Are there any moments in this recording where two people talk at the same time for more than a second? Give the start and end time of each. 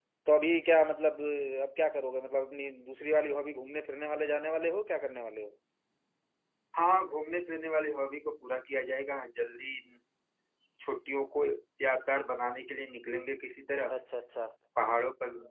none

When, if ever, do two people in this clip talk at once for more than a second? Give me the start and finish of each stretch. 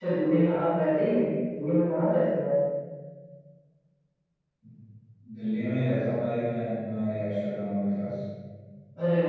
none

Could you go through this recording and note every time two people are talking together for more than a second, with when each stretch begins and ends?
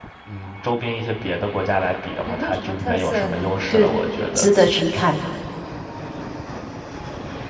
2.2-3.5

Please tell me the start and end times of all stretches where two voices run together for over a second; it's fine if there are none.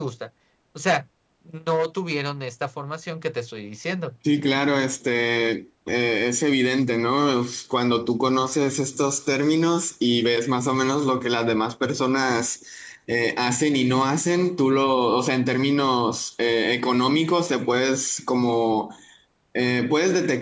none

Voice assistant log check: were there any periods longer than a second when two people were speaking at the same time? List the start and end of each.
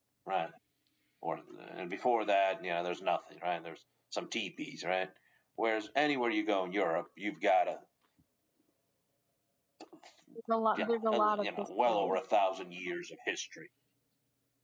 10.8-12.2

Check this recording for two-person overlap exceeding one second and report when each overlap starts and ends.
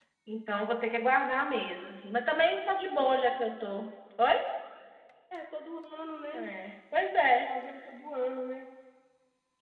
none

